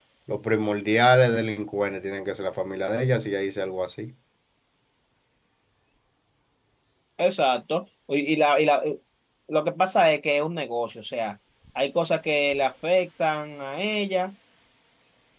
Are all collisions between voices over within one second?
Yes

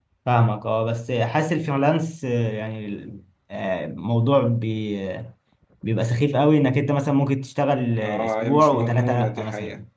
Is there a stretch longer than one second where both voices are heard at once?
Yes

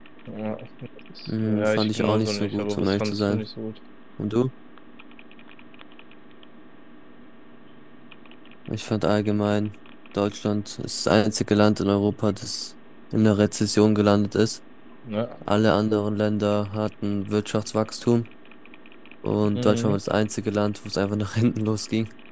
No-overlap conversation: No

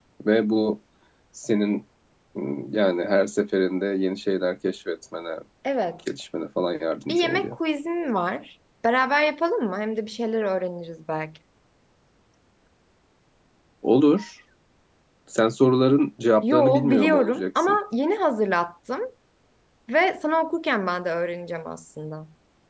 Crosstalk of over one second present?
Yes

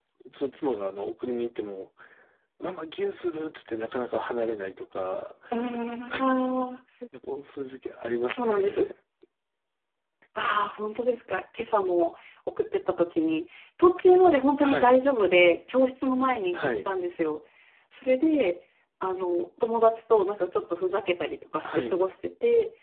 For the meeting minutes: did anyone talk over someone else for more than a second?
No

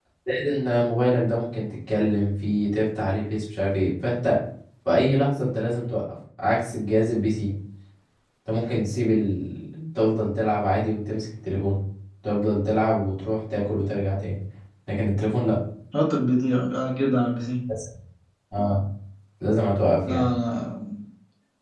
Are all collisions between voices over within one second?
Yes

